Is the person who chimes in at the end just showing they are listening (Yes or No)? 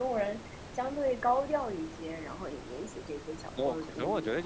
No